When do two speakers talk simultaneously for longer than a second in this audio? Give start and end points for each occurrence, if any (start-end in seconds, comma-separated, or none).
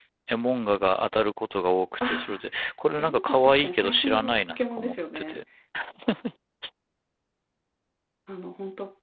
3.0-5.4